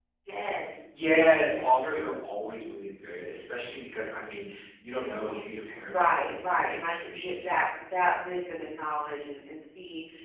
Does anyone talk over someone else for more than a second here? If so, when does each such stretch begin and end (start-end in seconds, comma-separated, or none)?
5.8-7.6